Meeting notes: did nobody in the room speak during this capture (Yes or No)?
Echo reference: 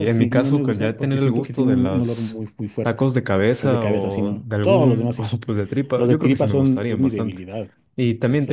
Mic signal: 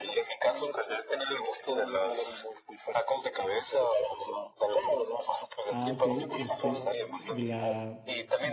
No